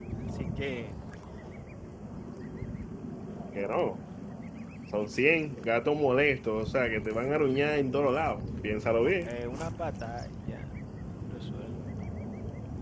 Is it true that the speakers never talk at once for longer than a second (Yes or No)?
Yes